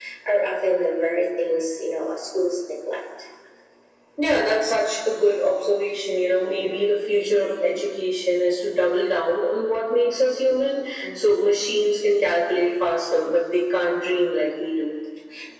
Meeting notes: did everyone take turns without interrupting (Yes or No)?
Yes